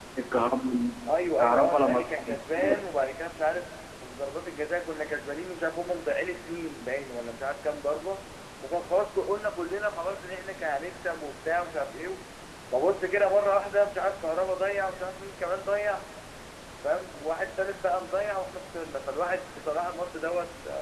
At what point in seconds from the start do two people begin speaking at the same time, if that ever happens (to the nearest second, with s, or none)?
1 s